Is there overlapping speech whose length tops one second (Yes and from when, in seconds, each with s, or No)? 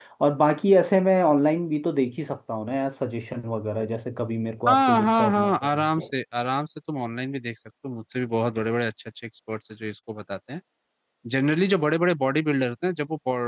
Yes, from 4.7 s